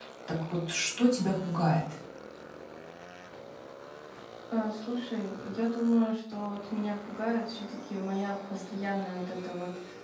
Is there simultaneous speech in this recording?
No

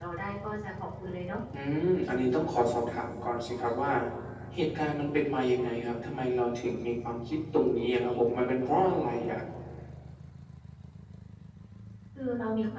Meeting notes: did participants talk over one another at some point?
No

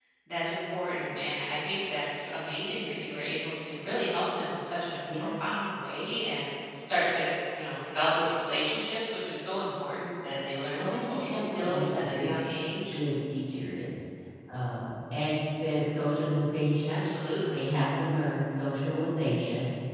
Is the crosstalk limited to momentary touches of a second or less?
No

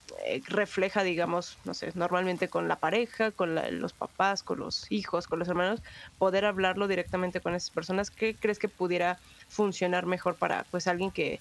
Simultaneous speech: No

